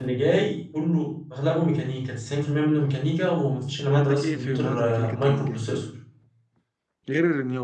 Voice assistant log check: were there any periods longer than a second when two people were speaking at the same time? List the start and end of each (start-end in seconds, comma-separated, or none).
3.9-5.6